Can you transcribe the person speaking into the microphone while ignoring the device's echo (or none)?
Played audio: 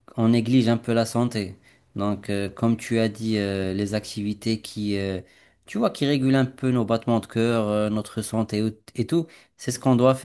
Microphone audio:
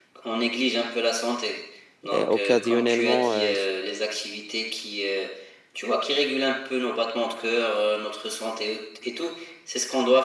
euh, occasionnellement, euh,